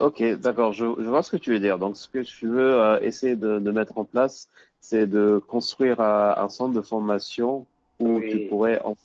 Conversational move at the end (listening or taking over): listening